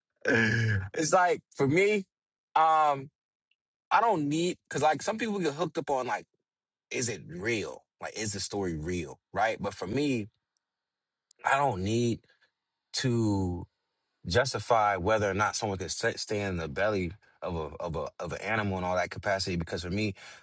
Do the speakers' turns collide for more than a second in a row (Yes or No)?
No